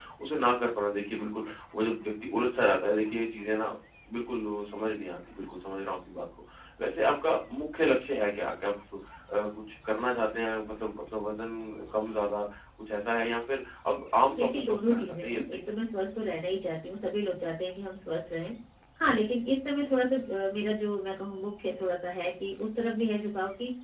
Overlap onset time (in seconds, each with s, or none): 14.4 s